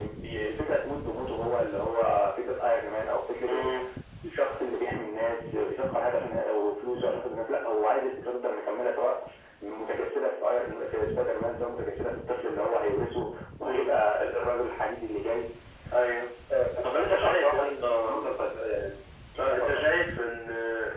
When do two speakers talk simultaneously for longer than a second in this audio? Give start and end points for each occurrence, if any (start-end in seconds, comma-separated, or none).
16.9-18.1